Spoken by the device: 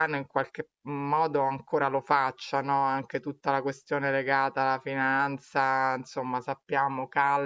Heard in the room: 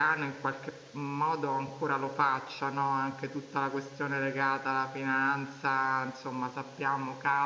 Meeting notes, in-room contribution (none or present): none